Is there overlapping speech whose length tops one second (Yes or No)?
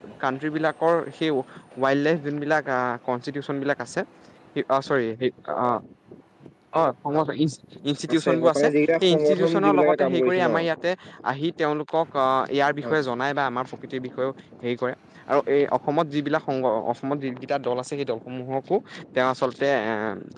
Yes